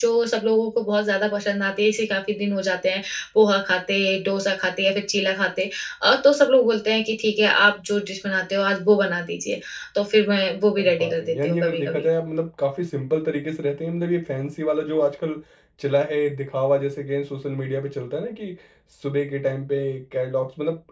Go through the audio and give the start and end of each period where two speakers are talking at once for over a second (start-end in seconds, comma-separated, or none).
10.8-12.0